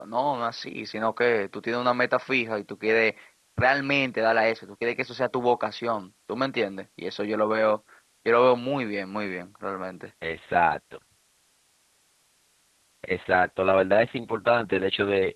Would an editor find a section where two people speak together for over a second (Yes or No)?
No